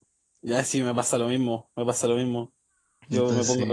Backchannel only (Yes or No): Yes